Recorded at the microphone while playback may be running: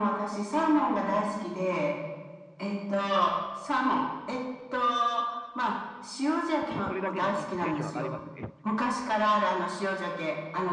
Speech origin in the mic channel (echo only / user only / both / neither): both